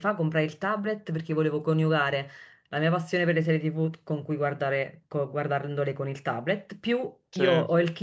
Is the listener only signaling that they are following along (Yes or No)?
Yes